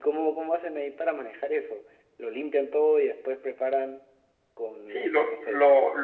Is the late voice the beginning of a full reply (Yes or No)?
Yes